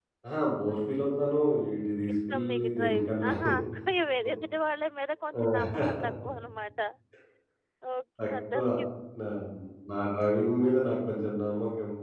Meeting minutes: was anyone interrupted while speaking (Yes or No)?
Yes